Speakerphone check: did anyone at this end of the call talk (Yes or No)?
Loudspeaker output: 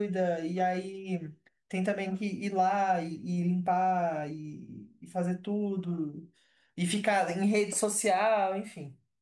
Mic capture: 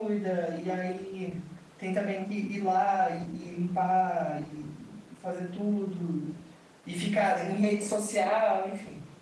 No